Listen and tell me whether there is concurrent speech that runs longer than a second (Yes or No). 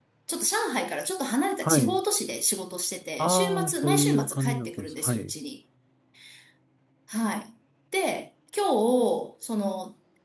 Yes